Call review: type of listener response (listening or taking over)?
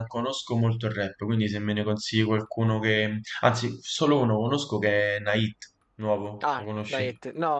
taking over